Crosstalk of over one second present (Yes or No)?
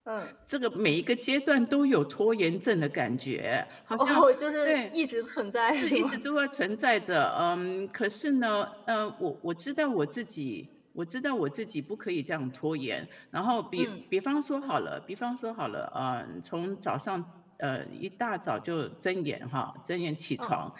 No